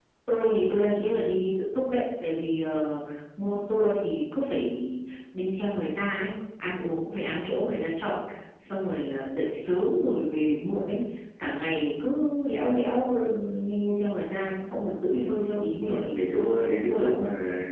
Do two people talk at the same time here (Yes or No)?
Yes